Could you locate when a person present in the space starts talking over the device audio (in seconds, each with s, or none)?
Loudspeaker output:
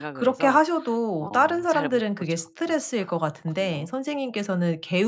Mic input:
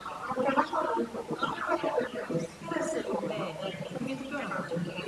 3.1 s